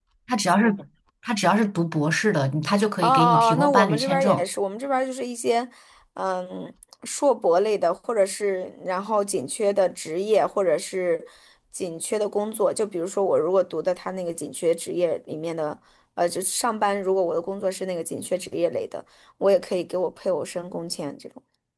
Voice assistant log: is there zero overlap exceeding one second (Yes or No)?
No